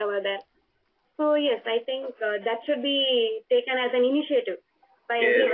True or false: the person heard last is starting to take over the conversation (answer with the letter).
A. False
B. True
B